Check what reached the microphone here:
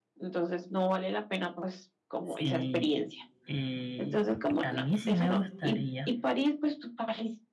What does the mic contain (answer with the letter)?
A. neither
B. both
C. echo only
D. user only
B